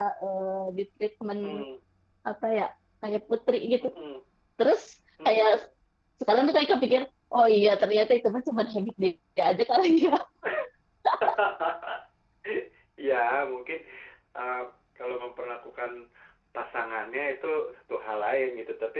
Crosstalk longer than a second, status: none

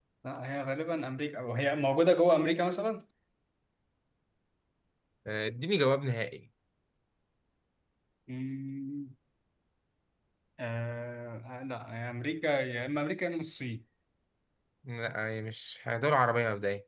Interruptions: none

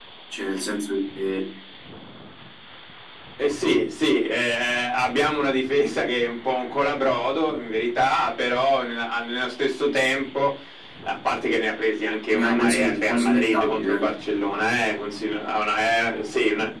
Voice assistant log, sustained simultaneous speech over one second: present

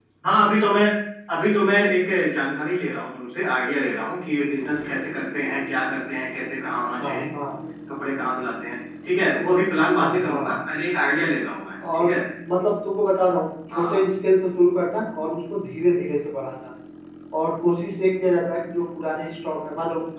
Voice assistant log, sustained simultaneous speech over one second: none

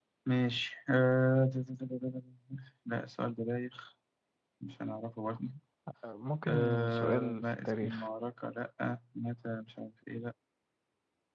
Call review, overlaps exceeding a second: present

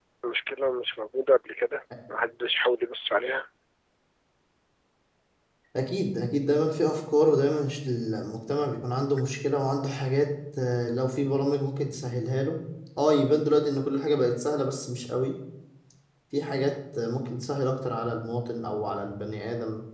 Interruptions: none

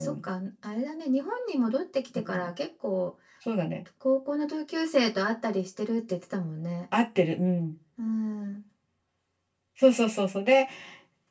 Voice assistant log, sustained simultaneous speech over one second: none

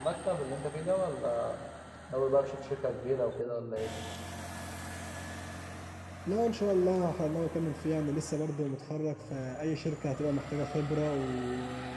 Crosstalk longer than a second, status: none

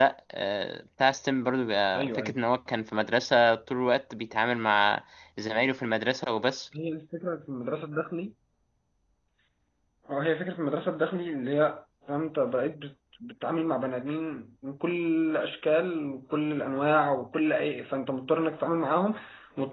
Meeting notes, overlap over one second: none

